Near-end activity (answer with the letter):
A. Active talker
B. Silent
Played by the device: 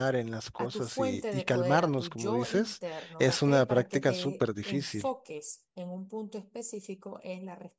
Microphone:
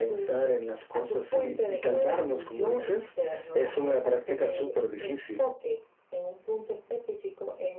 B